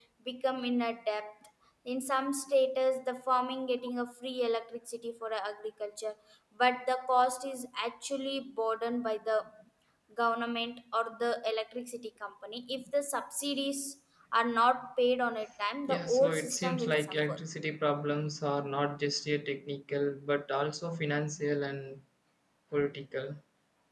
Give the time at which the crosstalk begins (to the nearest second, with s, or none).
16 s